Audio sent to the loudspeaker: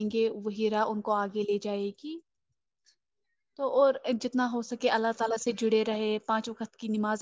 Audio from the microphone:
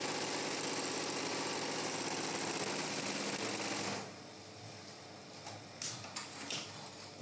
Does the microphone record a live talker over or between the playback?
No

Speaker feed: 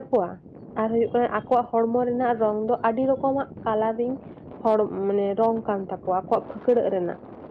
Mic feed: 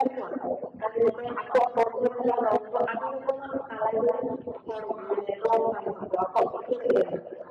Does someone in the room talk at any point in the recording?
No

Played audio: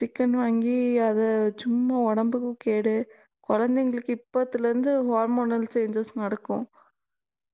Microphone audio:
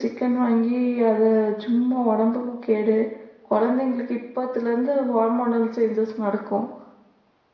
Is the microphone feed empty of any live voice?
Yes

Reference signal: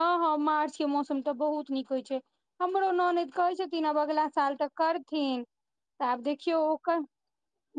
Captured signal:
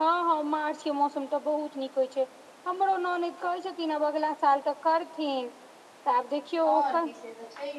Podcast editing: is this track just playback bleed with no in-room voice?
No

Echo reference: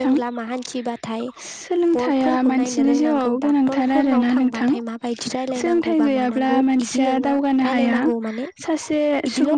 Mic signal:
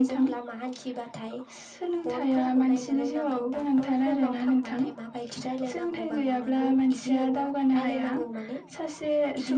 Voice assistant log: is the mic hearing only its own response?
Yes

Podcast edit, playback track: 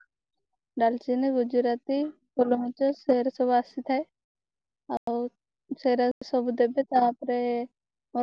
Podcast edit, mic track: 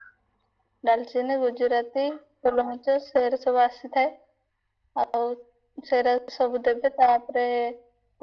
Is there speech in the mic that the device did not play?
No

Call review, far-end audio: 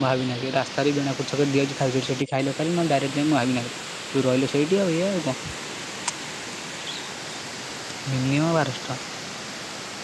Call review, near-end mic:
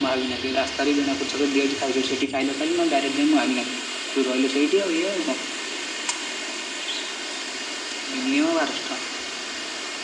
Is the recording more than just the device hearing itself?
No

